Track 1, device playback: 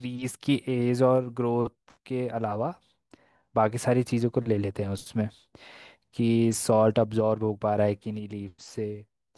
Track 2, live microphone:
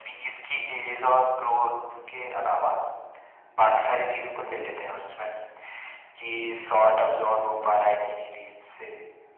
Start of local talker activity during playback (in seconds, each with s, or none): none